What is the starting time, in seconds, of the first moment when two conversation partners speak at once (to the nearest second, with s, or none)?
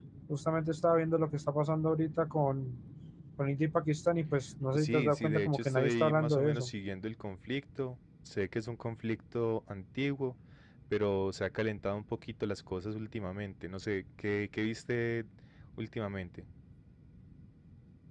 5 s